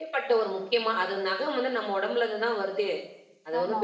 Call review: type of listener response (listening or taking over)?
listening